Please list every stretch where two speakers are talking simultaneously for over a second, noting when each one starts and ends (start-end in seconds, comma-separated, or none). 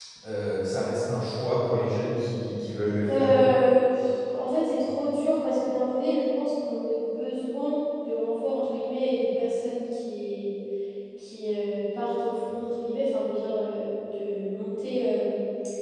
none